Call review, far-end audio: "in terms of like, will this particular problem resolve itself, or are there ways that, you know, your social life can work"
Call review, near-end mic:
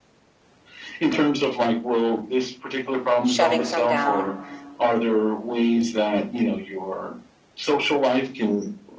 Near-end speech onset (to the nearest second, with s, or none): 3 s